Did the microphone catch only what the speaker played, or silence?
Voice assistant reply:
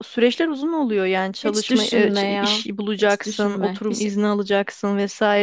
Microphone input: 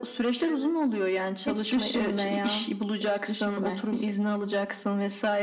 No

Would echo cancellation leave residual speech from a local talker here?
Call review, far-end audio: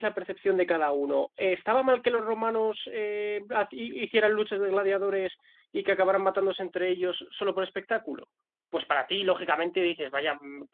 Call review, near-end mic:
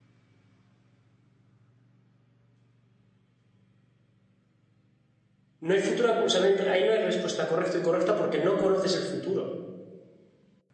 Yes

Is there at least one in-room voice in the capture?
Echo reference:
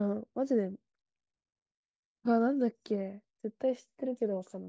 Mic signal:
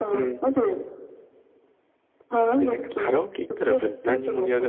Yes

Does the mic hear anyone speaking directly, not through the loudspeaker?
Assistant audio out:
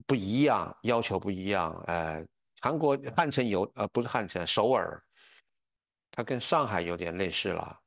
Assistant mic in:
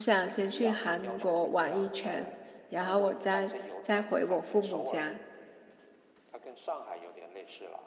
Yes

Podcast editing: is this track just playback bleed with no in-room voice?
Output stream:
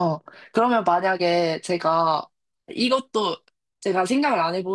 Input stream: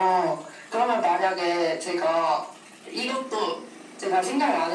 Yes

